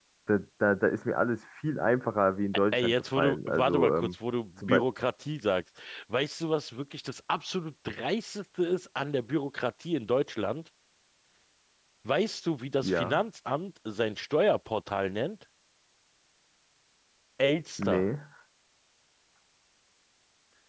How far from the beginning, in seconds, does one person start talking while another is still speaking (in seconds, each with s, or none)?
2.7 s